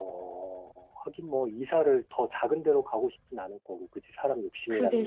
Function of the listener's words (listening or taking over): taking over